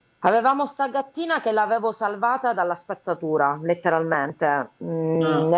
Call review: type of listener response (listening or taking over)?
listening